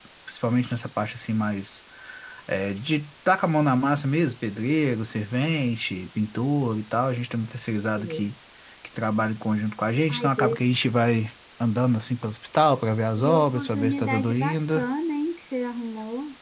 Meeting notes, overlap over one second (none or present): present